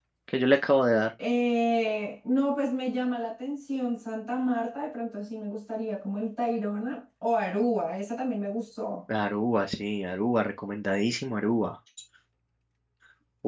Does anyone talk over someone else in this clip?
No

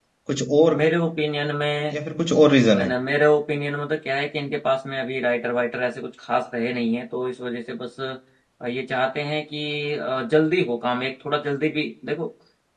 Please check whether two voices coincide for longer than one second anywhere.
No

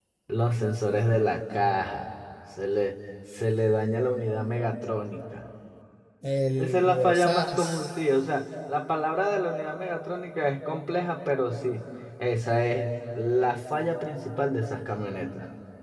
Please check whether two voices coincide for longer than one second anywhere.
Yes, from 6.6 s

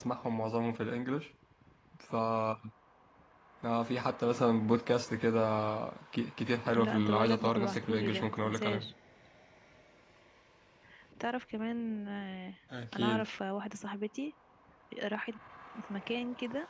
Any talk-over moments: Yes, from 6.8 s

